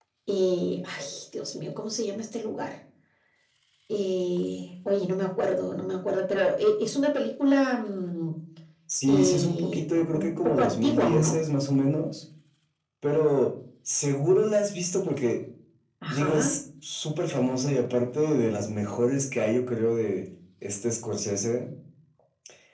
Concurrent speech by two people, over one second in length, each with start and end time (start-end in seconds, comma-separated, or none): 9.1-11.4